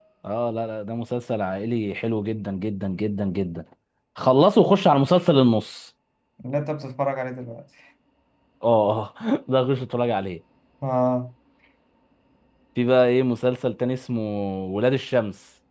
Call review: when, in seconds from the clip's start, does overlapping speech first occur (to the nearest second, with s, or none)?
none